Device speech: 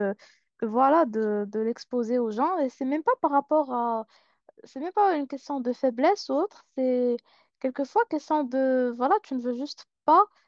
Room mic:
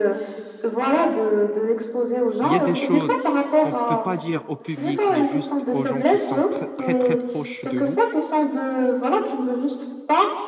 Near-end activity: present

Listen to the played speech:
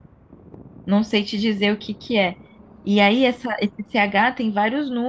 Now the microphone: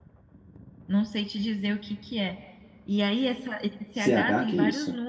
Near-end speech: present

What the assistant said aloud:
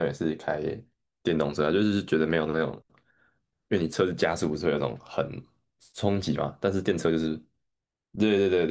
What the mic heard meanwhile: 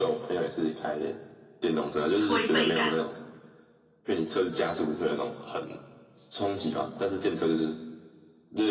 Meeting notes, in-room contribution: present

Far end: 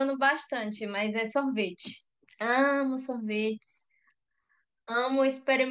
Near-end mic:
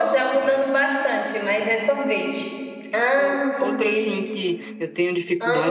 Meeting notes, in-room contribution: present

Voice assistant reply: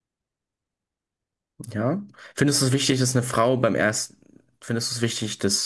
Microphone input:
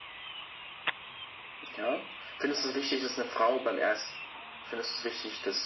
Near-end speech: none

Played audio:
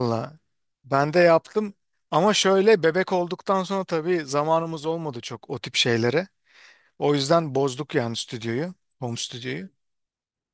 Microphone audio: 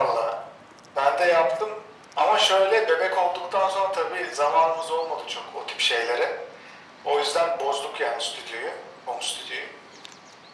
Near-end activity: none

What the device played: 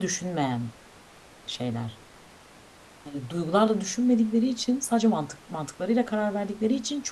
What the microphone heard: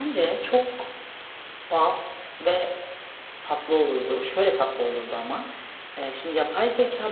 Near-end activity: present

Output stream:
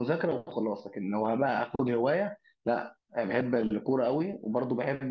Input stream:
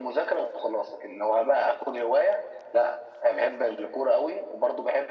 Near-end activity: none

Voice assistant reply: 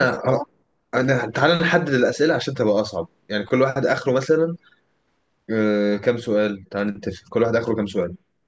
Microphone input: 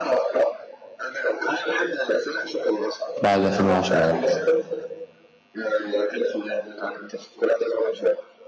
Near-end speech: present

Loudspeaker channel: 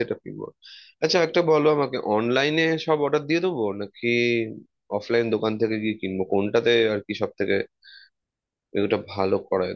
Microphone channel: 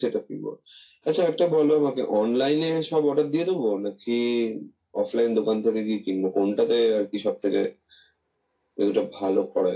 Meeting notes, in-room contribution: none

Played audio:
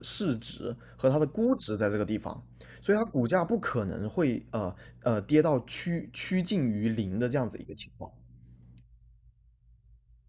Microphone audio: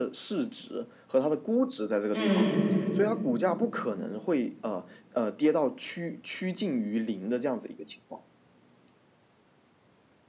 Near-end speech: present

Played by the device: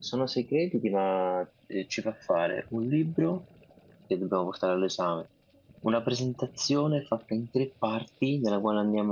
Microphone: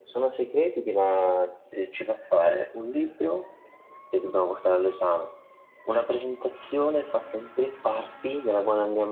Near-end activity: none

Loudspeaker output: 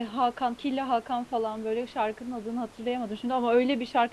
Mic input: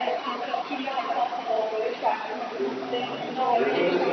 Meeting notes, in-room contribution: present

